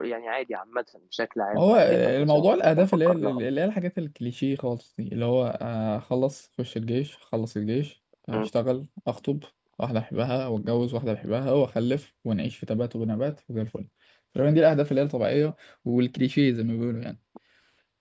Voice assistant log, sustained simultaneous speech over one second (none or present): present